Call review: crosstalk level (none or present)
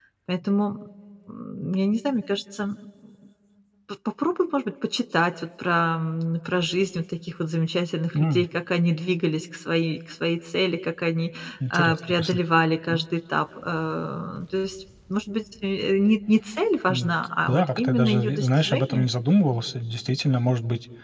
present